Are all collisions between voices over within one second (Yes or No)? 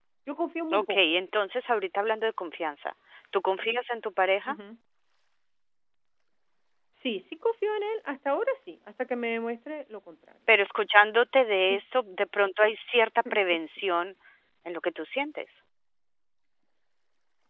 Yes